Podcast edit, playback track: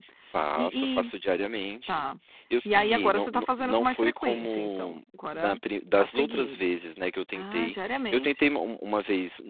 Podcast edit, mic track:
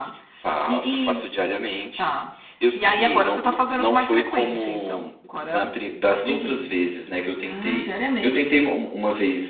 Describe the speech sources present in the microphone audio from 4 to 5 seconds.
echo only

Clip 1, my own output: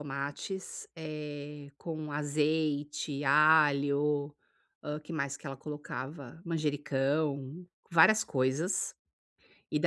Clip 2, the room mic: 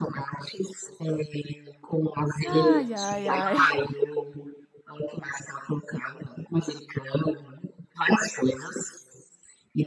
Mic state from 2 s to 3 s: both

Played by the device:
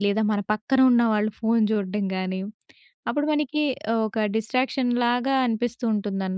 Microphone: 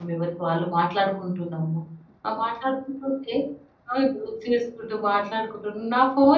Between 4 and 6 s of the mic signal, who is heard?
user only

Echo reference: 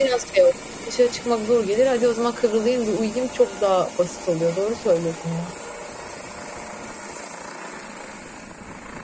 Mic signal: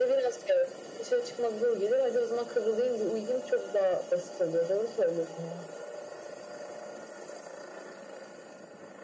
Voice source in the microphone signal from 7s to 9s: neither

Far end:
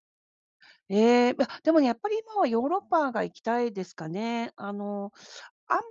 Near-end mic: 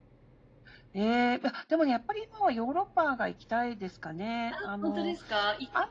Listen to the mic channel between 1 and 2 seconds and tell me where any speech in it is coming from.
echo only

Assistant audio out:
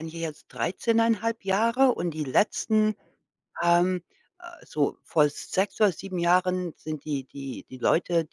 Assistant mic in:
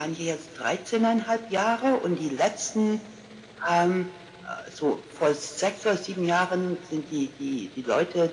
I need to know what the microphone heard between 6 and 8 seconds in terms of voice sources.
echo only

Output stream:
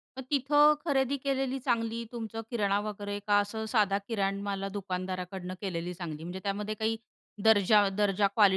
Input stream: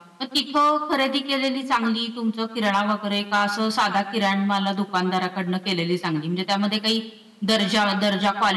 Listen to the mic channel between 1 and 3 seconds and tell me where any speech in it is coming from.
echo only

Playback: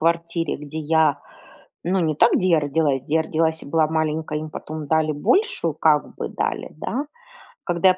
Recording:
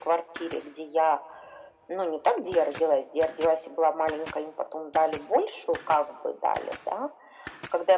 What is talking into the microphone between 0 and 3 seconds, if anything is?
echo only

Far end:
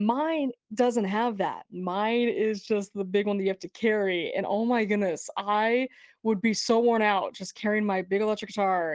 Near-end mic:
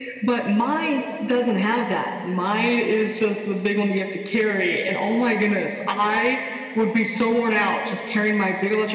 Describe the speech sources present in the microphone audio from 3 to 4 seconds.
echo only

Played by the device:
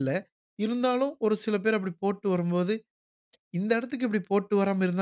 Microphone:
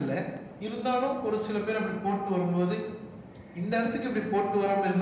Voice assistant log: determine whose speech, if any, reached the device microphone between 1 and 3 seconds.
echo only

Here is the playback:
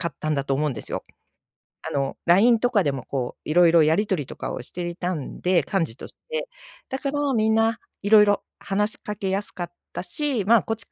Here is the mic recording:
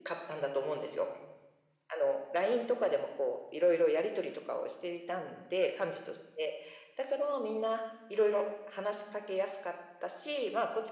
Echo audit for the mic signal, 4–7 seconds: echo only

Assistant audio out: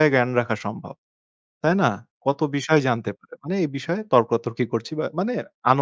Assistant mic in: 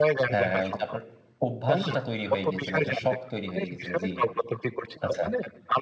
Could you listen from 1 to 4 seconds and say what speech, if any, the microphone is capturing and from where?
both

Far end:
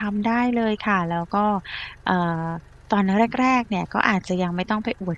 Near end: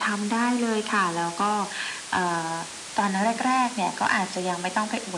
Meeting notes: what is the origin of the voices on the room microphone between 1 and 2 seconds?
echo only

